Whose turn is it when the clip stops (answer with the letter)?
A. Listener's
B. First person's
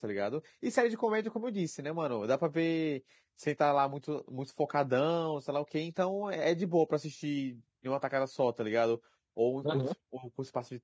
B